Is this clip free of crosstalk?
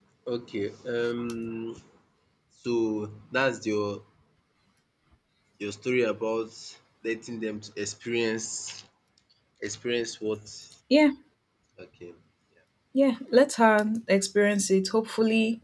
Yes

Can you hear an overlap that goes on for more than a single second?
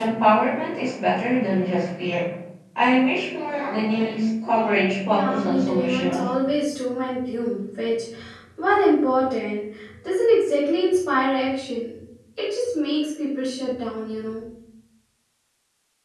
Yes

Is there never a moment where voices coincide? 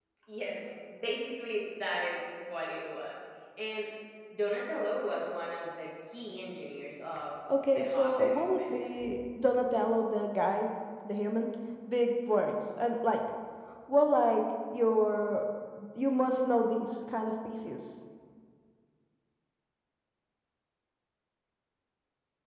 No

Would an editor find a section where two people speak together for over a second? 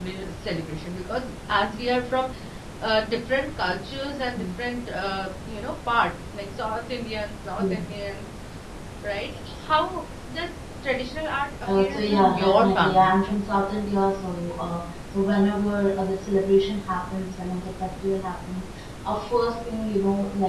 Yes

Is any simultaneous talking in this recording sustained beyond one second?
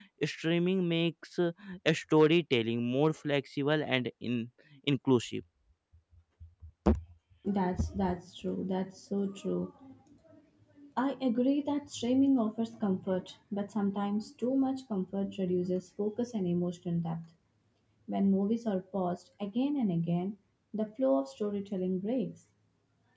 No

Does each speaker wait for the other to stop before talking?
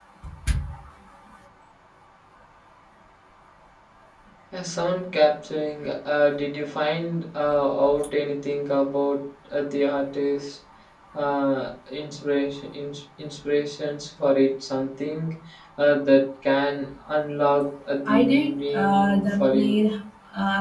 No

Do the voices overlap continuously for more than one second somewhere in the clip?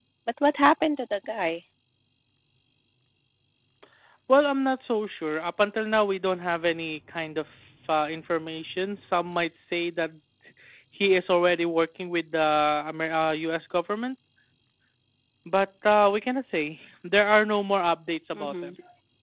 No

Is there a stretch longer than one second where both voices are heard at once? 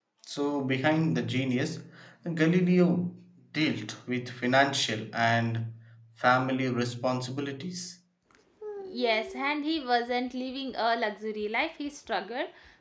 No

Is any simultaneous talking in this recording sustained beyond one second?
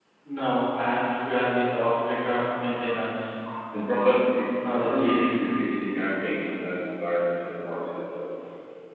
No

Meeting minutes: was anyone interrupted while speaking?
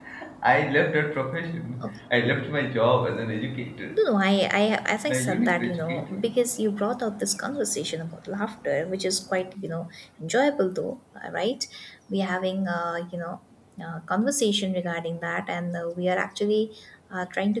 Yes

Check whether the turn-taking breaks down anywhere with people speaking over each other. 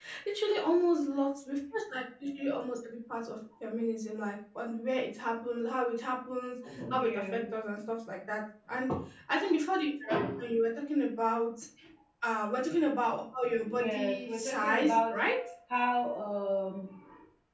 Yes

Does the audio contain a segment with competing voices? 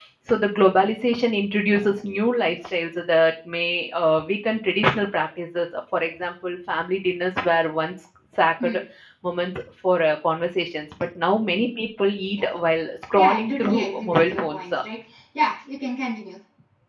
Yes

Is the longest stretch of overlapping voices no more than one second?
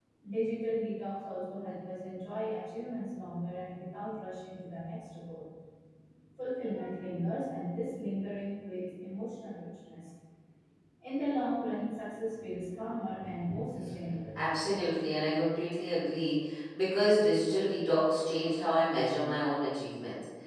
Yes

